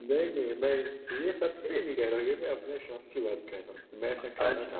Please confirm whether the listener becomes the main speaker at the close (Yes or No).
Yes